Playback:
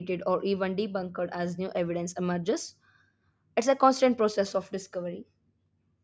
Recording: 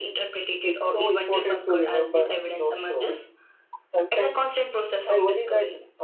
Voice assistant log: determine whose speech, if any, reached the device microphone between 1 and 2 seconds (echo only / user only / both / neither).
both